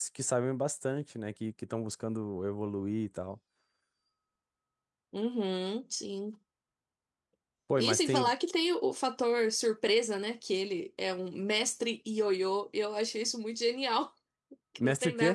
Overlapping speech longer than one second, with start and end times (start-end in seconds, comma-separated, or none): none